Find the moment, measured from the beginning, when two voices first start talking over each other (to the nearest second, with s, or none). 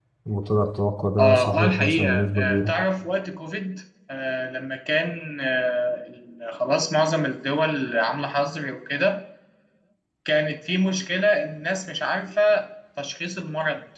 1 s